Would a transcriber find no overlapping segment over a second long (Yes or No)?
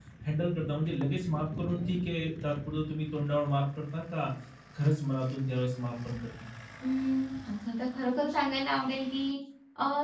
Yes